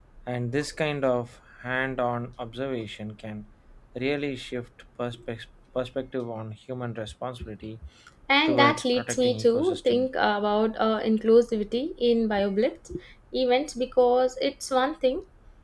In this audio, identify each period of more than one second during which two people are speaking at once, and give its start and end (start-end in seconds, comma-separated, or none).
8.4-10.1